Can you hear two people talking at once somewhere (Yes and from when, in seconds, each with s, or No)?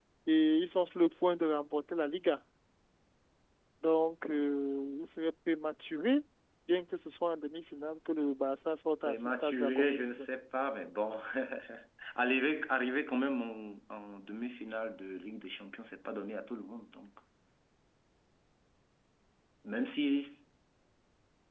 Yes, from 9.1 s